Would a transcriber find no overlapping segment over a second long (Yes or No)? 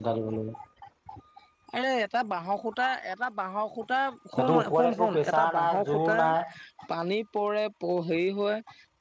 No